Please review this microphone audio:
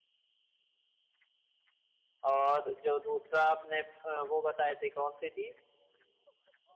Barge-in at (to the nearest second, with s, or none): 2 s